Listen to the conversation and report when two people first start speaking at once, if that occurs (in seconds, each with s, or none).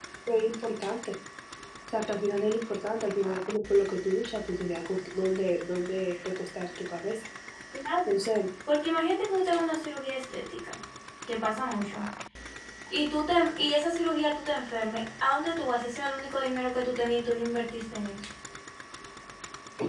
none